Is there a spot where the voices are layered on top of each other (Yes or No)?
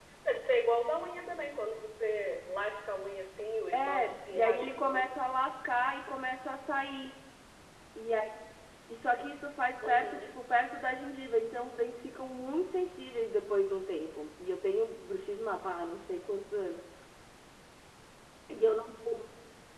Yes